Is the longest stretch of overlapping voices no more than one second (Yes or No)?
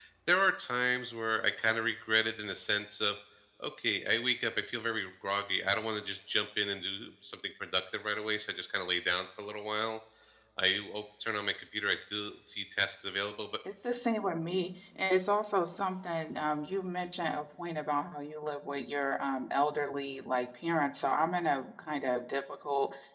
Yes